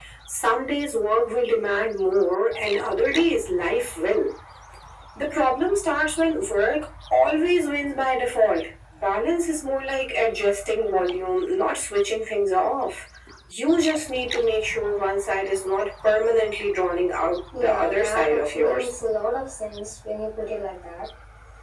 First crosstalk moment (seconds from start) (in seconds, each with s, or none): 17.5 s